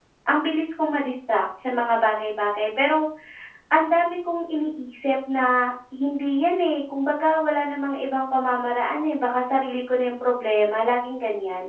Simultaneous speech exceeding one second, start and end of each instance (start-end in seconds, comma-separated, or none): none